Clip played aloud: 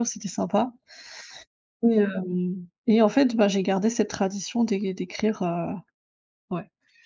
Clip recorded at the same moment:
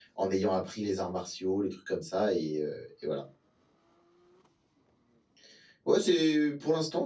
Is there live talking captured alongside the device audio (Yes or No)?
Yes